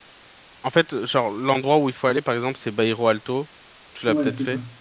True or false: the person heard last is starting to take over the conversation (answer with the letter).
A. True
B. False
A